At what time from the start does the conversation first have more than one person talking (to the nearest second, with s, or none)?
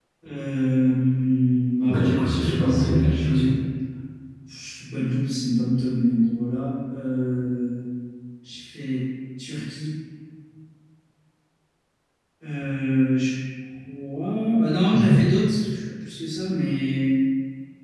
2 s